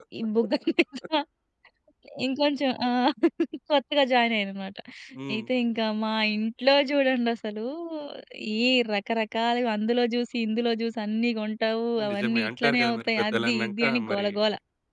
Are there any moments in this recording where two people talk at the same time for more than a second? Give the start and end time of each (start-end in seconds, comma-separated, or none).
12.1-14.3